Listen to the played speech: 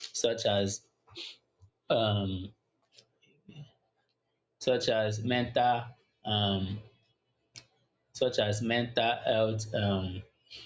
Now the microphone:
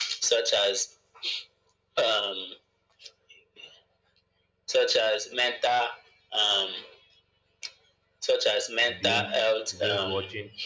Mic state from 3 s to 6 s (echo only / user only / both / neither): echo only